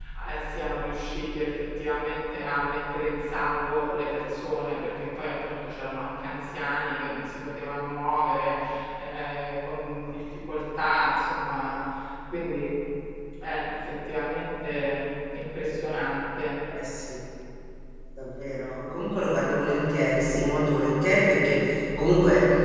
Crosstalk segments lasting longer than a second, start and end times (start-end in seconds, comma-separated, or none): none